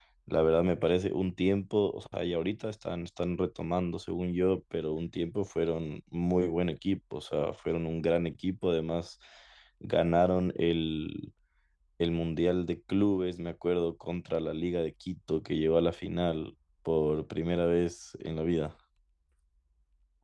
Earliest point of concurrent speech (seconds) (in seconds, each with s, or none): none